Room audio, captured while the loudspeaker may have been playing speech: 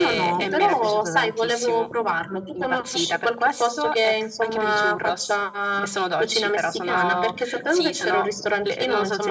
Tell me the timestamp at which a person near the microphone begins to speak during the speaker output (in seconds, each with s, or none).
none